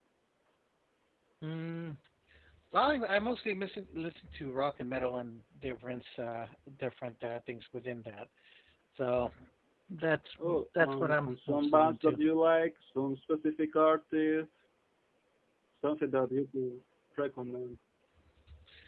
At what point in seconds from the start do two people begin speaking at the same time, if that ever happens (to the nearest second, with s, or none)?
10 s